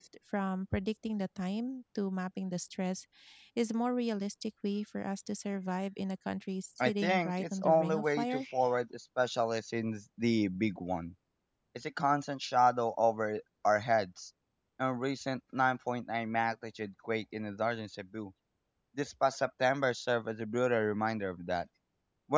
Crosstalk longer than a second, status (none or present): present